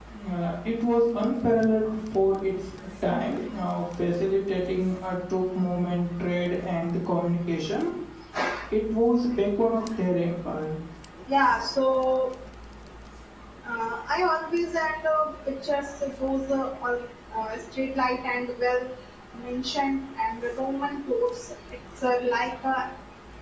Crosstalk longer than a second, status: none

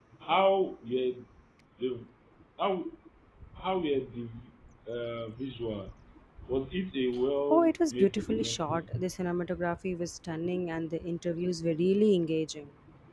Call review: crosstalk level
present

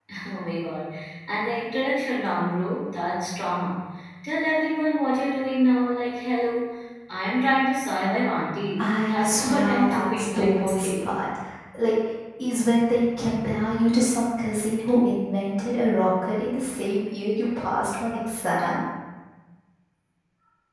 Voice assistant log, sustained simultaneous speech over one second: present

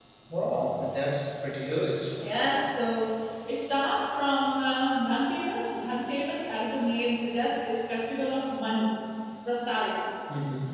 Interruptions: none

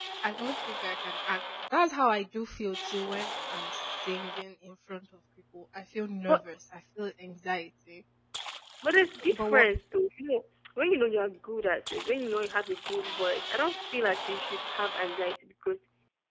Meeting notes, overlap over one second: none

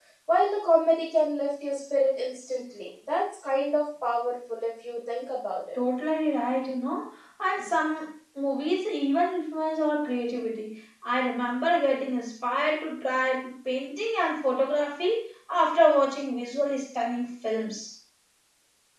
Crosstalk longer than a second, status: none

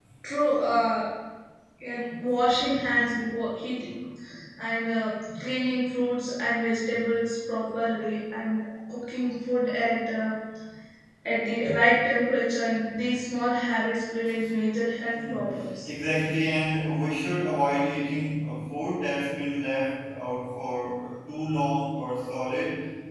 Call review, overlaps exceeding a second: none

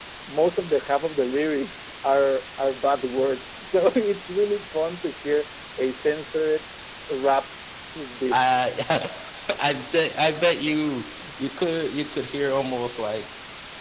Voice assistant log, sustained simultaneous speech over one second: none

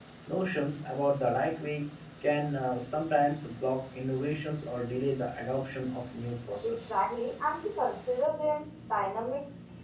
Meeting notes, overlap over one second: none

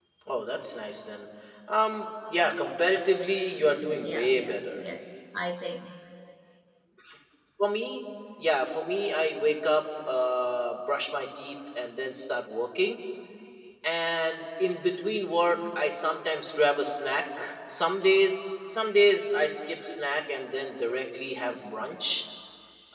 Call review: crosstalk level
present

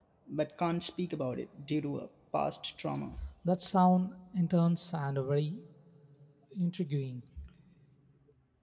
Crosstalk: none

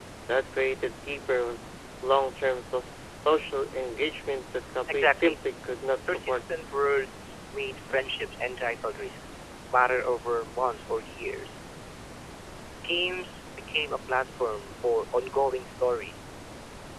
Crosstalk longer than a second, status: none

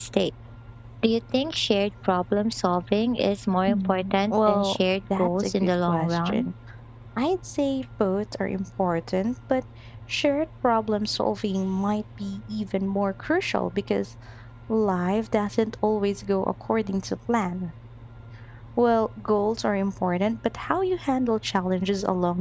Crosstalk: present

